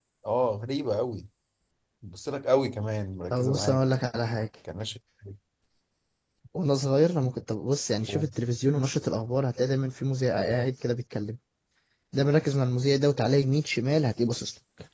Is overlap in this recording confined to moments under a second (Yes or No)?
Yes